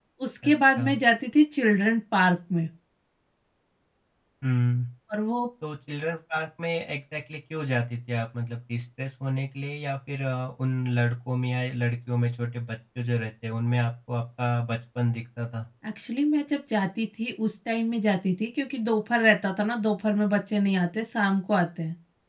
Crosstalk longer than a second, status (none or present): none